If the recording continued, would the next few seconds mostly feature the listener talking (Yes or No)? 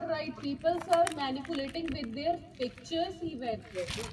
No